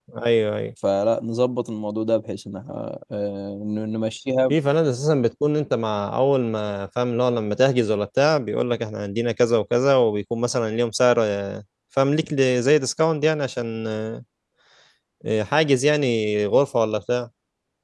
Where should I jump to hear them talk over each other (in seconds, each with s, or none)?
none